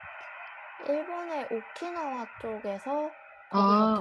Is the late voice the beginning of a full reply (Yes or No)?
No